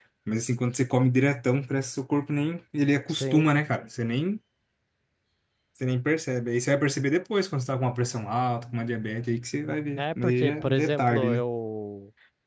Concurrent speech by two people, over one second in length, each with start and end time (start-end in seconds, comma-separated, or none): 10.0-11.4